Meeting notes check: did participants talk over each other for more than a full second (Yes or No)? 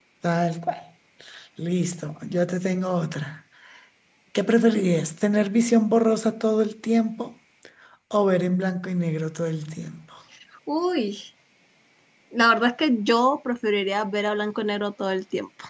No